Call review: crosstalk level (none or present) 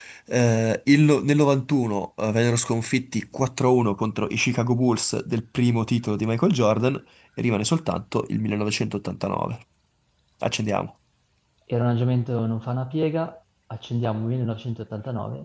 none